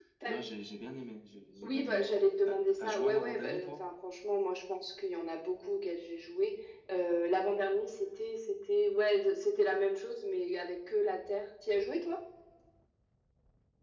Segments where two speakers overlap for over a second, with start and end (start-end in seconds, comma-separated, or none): 1.6-3.7